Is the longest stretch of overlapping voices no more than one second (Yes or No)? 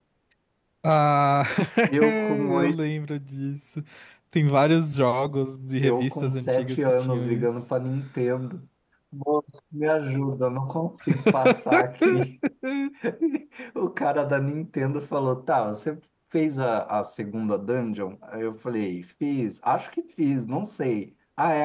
No